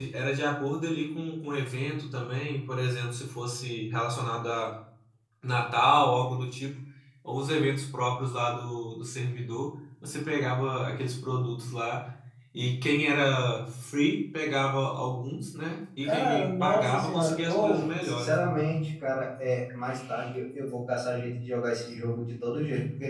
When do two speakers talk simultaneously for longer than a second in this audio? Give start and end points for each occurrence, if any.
16.0-18.5

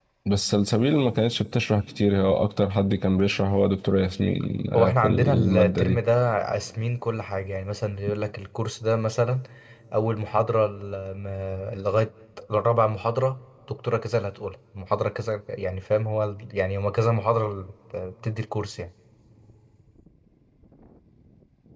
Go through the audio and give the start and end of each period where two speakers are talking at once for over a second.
4.8-6.0

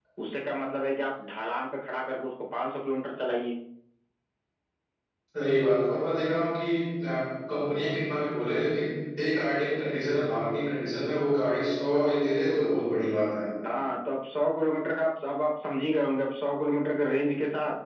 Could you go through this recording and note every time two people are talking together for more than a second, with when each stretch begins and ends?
none

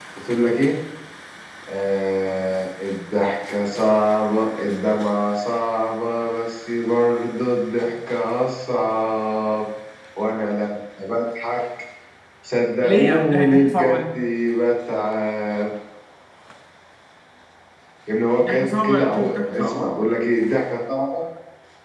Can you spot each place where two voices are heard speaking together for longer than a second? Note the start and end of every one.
12.8-14.0, 18.4-19.8

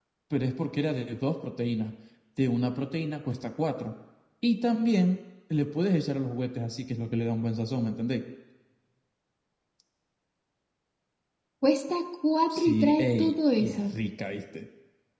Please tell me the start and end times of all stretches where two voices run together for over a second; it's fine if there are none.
12.6-13.9

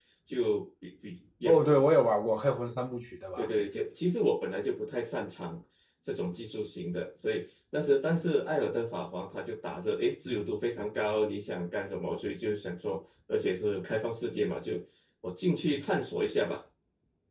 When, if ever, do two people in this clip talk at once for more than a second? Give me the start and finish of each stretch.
none

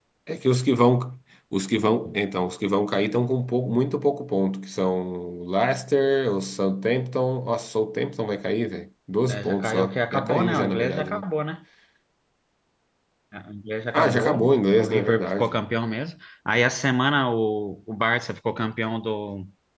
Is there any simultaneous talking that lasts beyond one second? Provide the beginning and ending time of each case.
9.3-11.2, 13.9-15.6

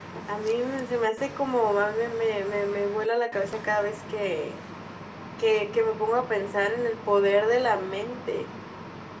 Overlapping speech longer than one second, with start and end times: none

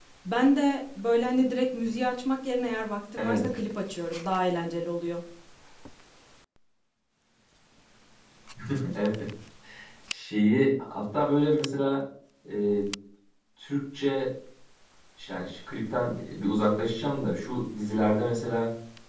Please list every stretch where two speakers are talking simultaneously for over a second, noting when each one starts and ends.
none

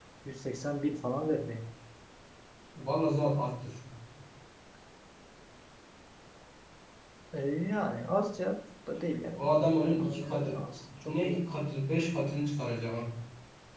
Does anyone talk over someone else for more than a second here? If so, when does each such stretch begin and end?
9.4-10.6

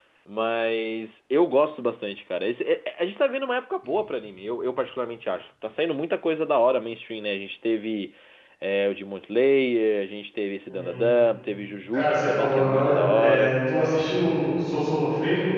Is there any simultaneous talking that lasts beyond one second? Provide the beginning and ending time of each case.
11.9-13.5

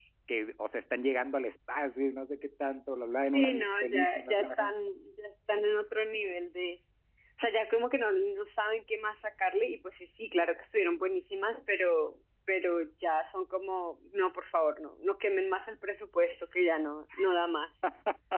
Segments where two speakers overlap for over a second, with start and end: 3.3-4.7

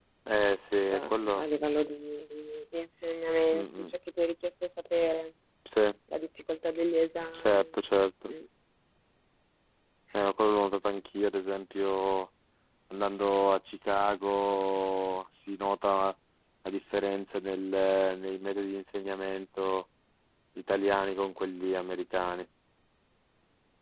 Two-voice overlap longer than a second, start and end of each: none

